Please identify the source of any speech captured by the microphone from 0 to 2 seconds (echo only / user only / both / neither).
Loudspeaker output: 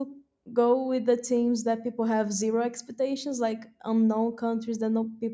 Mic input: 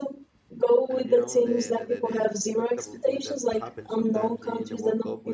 both